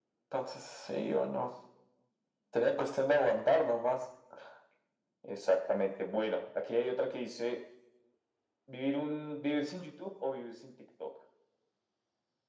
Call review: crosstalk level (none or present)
none